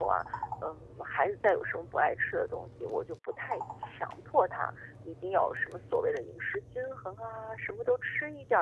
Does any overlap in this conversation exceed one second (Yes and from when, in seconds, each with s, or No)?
No